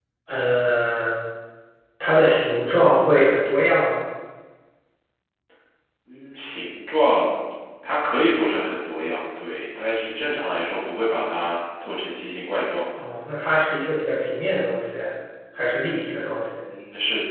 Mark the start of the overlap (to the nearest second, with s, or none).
none